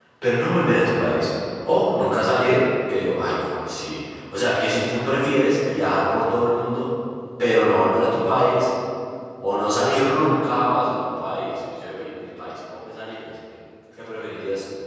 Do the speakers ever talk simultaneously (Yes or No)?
No